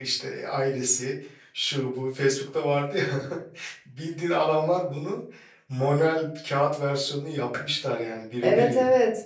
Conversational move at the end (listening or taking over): taking over